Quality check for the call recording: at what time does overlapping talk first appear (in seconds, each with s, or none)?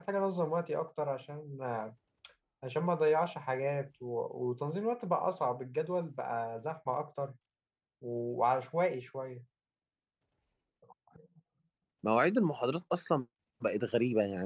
none